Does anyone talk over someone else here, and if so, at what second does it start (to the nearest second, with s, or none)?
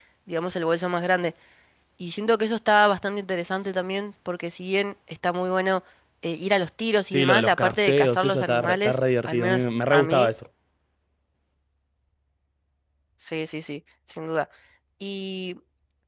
7 s